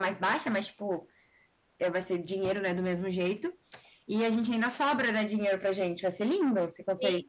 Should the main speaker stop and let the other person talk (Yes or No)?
Yes